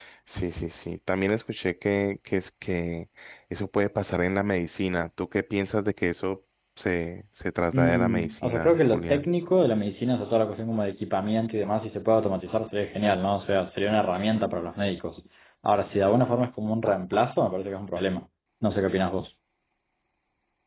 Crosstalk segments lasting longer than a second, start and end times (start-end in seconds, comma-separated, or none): 7.7-9.3